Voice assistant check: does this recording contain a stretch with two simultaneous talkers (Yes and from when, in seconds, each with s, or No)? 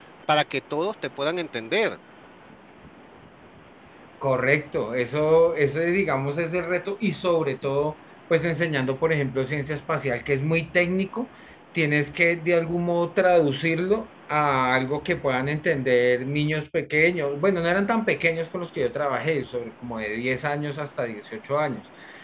No